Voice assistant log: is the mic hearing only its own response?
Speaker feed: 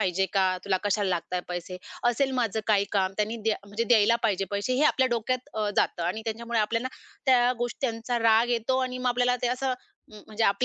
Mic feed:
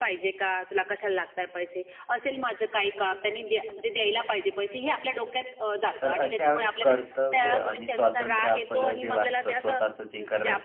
No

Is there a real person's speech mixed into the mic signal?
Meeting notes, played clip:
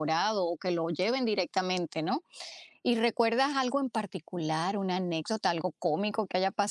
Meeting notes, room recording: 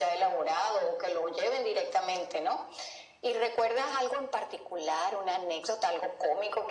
No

